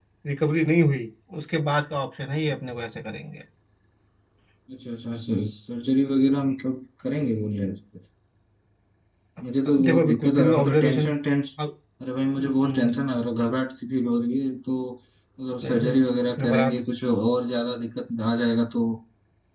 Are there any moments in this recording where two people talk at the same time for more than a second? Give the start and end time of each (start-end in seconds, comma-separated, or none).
9.8-11.1